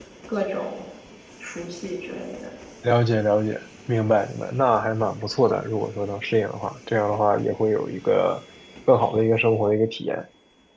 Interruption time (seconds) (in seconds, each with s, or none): none